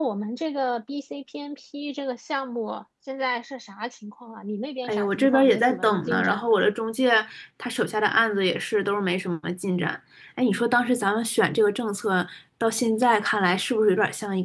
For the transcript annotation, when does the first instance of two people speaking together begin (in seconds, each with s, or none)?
4.8 s